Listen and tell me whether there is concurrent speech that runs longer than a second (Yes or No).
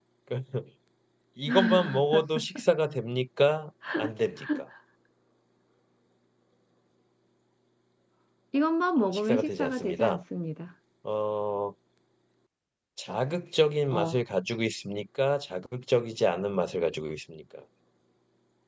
Yes